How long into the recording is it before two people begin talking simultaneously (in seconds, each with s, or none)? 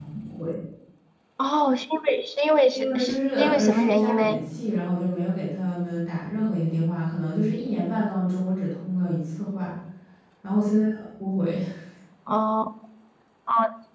2.7 s